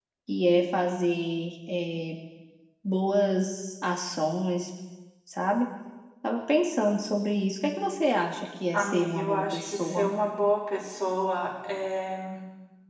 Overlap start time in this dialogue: 9 s

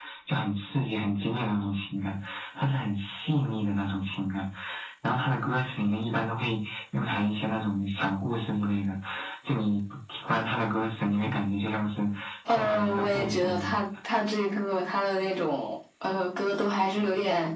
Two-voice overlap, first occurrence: 12 s

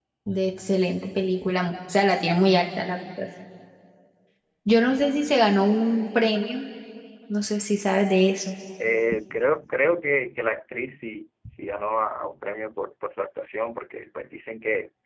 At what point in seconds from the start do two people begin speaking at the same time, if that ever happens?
none

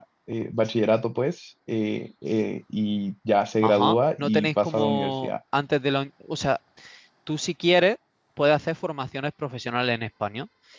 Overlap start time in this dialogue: 4 s

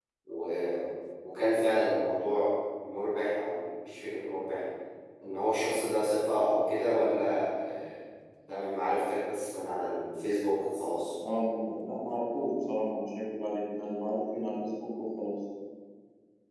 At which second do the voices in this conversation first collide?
none

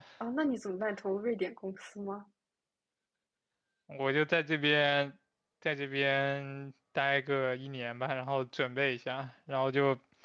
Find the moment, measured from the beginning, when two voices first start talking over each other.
none

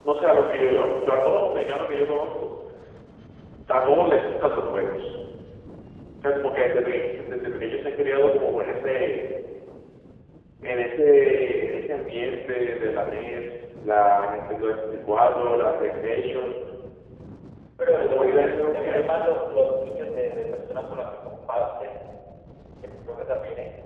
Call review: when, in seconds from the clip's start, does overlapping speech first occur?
18 s

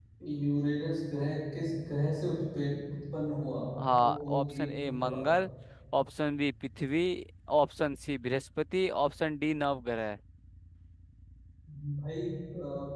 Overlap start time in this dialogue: 4 s

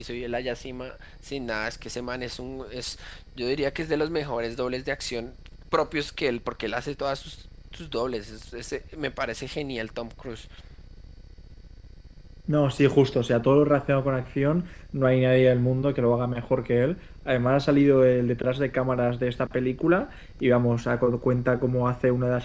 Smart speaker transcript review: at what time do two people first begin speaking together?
none

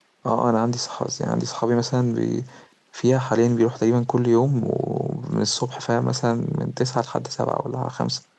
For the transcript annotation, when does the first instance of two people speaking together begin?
none

